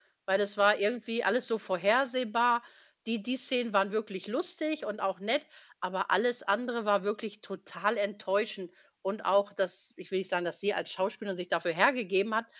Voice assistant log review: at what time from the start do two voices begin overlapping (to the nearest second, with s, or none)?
none